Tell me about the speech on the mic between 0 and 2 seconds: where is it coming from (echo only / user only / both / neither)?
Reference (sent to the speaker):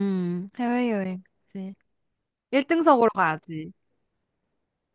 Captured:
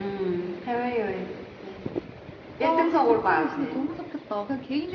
echo only